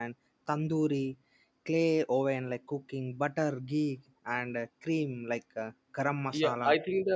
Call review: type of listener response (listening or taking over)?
taking over